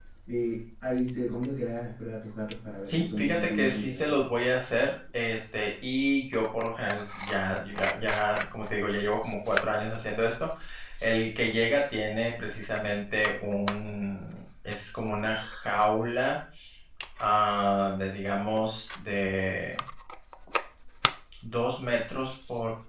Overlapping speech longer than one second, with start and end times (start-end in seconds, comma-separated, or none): 2.9-4.2